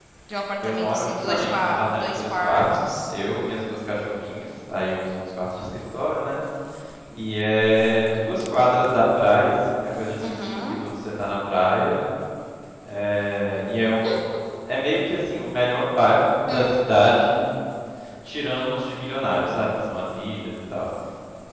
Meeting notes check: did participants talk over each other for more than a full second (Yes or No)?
Yes